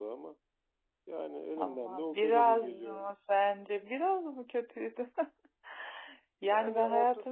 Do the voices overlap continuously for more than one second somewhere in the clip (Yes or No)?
Yes